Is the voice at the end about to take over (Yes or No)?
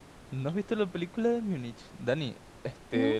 No